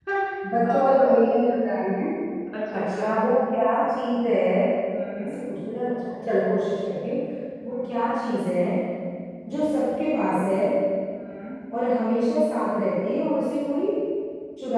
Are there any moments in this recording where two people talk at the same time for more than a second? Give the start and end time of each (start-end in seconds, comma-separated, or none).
none